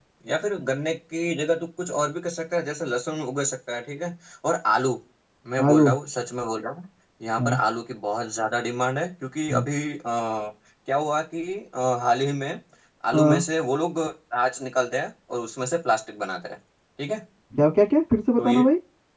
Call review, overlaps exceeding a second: none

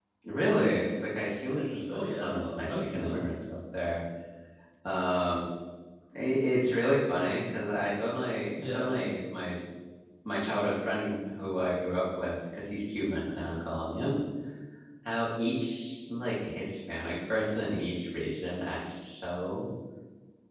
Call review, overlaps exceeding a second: present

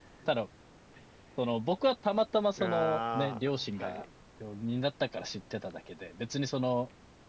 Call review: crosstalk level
present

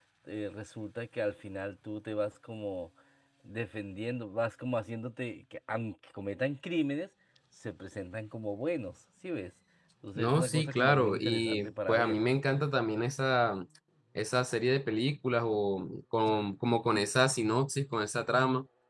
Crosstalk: present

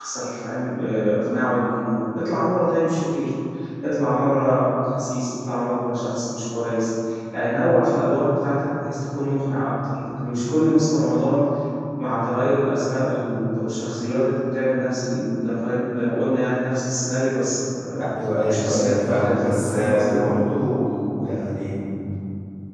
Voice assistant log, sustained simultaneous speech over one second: present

